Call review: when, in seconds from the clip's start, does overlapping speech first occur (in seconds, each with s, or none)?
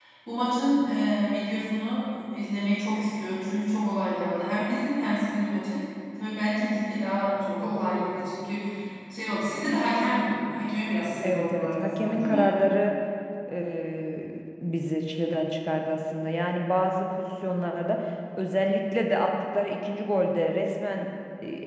11.2 s